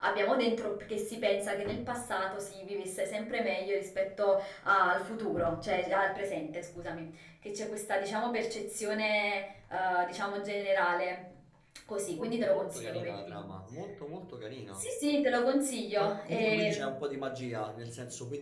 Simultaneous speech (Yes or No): Yes